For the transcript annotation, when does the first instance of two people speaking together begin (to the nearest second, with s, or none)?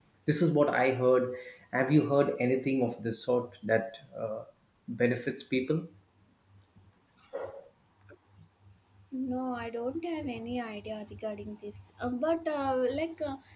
none